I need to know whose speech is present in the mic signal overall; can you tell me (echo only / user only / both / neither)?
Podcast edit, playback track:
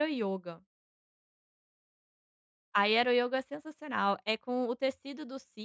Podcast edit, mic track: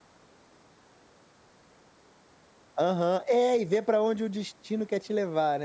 user only